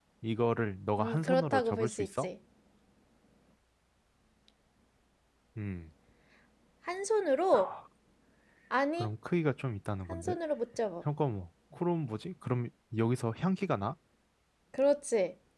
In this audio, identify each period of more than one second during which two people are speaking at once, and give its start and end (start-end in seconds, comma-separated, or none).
1.0-2.3